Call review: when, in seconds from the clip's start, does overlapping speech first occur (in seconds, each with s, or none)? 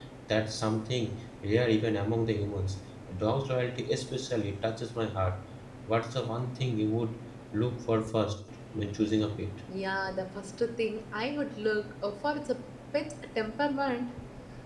none